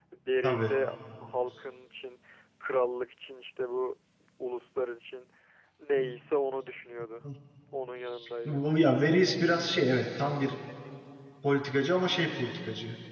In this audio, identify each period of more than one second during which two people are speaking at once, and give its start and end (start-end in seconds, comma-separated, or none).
none